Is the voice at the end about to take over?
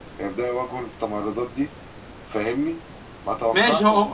Yes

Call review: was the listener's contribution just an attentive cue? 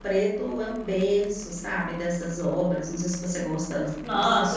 No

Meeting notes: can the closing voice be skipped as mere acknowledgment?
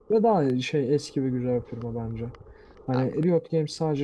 Yes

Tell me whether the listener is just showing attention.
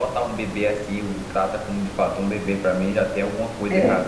No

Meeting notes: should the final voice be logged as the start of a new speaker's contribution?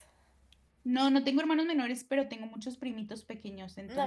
Yes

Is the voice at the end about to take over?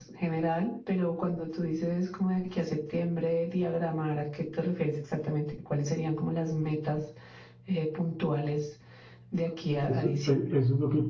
Yes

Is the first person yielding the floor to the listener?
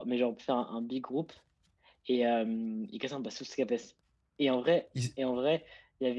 No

